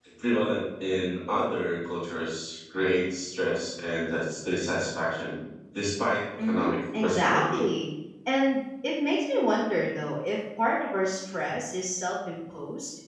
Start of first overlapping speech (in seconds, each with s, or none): 6.4 s